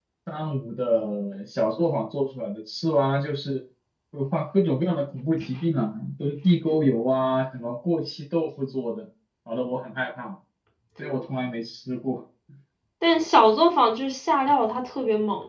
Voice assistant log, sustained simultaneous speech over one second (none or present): none